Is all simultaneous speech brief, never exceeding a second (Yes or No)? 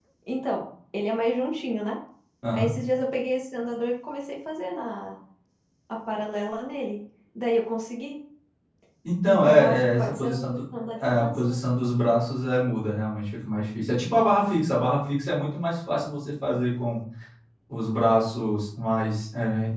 No